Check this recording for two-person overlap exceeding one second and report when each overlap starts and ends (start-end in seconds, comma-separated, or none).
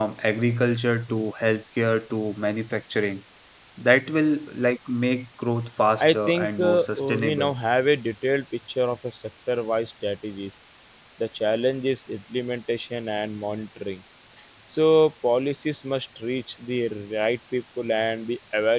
6.0-7.5